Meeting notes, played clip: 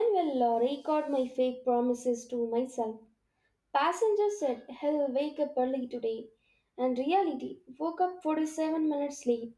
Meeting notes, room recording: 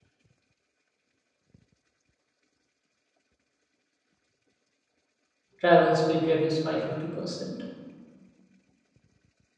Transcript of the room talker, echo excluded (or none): Travel speed reduced by 50%.